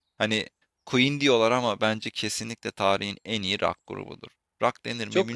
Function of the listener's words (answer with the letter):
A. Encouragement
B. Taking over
B